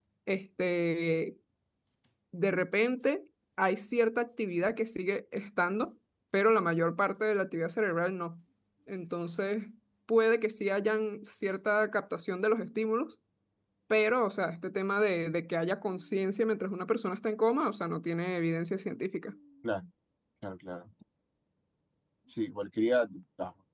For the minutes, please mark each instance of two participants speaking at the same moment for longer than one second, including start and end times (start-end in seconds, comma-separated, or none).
none